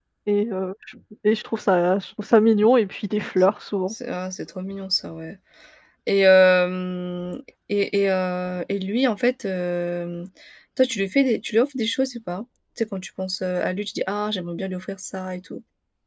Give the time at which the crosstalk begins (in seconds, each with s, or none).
none